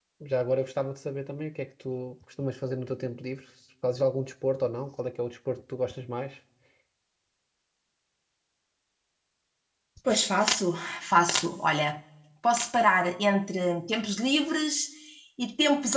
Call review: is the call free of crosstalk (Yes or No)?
Yes